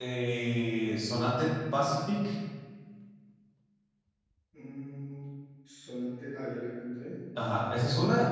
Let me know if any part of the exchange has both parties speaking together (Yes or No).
No